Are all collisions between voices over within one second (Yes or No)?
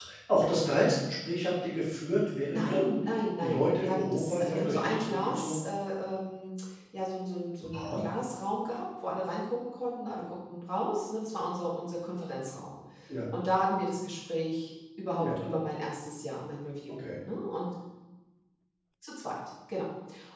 No